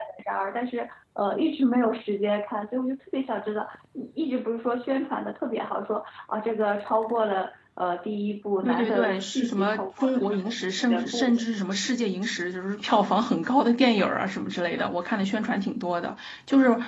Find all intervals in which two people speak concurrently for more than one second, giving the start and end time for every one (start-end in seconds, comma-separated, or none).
8.7-10.2